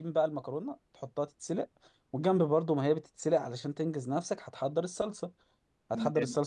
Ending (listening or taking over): listening